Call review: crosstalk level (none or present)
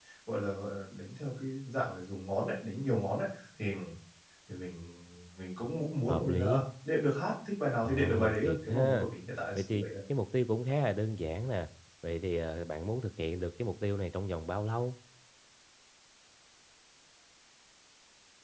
present